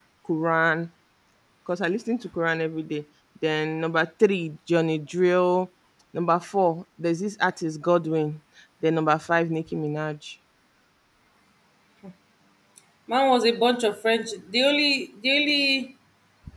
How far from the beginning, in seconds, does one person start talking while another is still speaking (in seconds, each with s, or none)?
none